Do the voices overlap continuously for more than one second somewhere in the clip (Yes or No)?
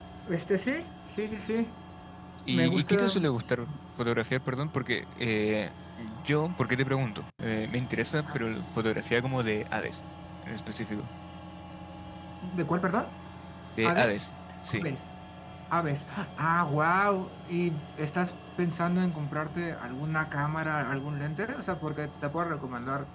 Yes